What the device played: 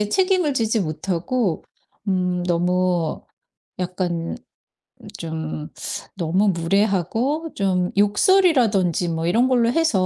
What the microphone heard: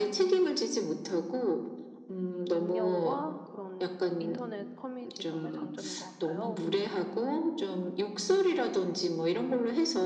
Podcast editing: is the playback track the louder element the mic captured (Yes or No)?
Yes